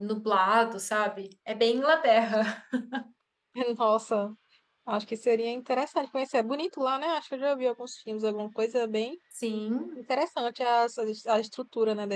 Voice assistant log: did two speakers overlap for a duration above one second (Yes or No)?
No